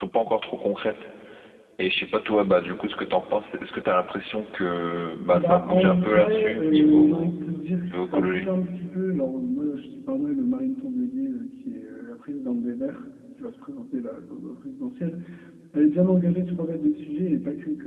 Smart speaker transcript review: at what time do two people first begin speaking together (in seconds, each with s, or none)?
5.3 s